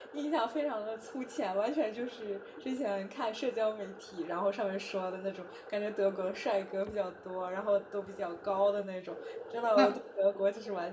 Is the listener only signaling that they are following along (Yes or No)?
Yes